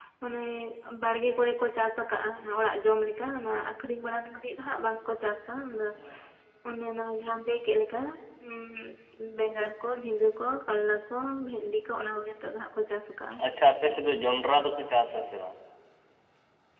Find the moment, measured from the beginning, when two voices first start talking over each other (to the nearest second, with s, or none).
none